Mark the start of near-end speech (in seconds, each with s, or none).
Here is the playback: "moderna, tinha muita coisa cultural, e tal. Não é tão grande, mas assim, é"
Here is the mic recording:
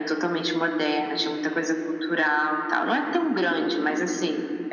none